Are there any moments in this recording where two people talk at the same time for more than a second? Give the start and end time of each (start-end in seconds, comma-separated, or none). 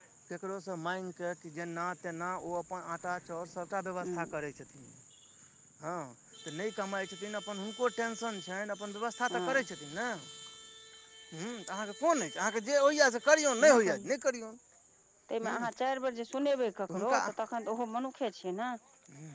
none